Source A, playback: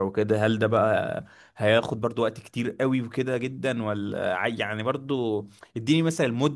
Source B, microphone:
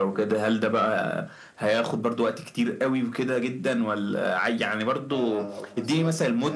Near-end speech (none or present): present